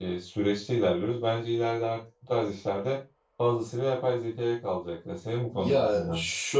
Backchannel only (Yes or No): No